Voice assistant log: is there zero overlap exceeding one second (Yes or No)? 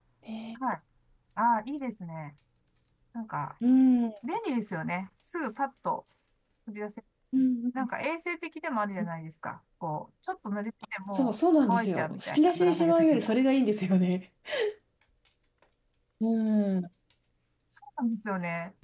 No